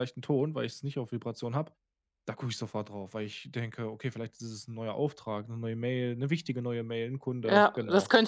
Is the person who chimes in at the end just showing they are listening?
No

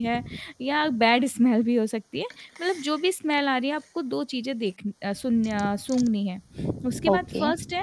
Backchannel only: Yes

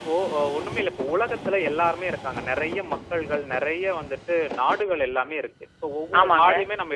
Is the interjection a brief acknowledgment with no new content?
Yes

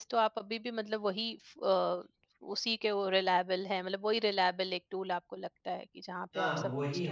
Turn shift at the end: Yes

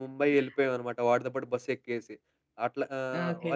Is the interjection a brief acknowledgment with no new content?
Yes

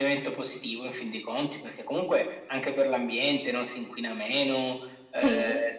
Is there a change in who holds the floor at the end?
No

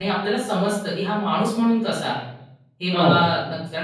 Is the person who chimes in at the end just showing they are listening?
Yes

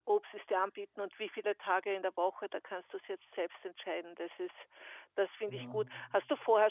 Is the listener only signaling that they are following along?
Yes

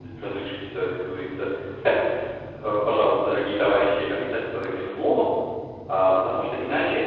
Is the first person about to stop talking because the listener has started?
No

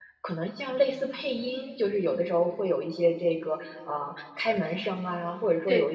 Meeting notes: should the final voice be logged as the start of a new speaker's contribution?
No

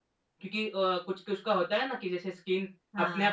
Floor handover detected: No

